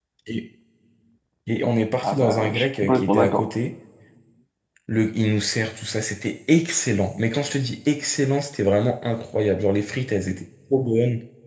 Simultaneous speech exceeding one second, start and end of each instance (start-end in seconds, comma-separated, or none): 2.0-3.4